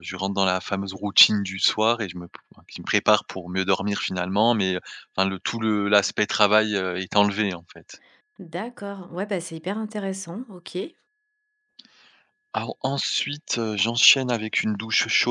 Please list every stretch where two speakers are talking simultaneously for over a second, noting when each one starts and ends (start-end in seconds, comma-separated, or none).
none